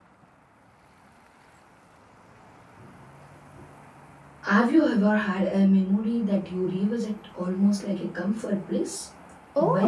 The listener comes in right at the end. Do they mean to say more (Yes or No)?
Yes